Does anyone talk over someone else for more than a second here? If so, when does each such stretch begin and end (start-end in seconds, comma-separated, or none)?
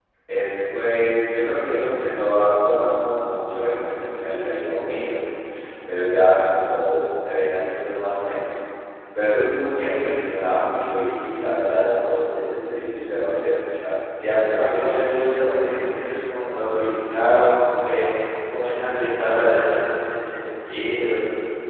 14.6-16.0